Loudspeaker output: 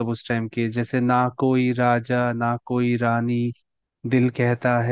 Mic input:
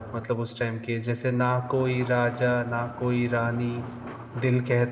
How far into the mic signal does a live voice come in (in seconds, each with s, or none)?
none